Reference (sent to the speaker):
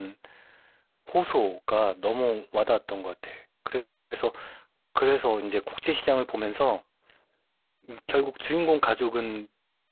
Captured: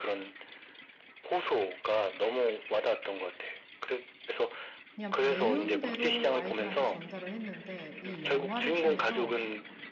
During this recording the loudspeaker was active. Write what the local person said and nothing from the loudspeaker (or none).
그냥 배운 대로 아이들한테 전달을 했는데 이 영화를 통해서